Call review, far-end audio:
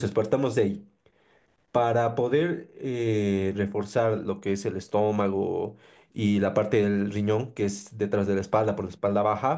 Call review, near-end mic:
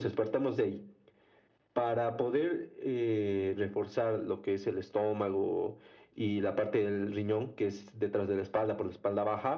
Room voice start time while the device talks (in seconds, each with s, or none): none